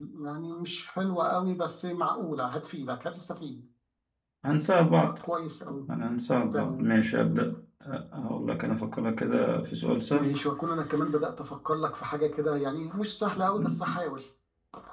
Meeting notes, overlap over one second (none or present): none